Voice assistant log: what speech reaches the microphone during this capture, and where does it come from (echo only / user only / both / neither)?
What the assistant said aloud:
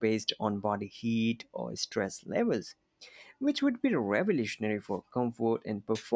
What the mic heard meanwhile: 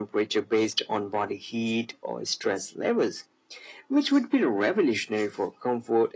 echo only